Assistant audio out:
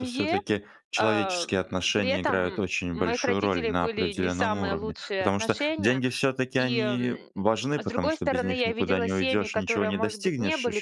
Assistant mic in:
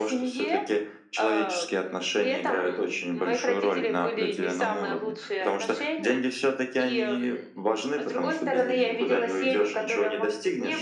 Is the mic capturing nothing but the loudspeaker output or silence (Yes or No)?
Yes